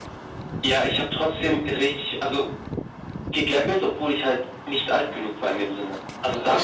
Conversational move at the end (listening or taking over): listening